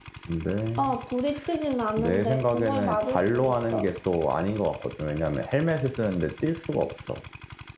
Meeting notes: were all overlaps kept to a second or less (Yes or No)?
No